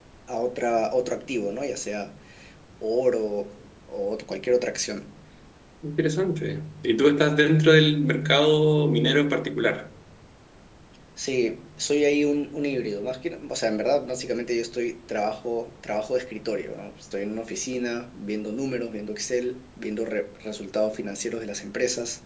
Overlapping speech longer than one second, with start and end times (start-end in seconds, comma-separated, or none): none